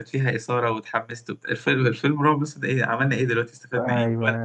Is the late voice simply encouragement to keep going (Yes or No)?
No